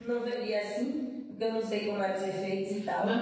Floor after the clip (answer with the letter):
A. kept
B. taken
B